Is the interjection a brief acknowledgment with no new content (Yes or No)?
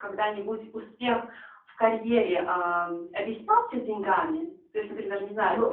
No